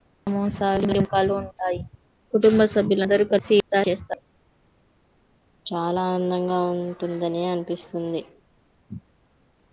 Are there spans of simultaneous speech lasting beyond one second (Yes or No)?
No